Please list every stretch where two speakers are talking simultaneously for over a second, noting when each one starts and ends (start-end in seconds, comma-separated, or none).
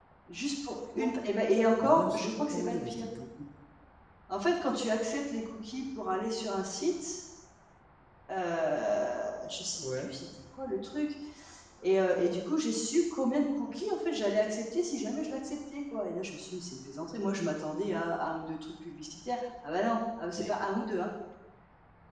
1.8-3.0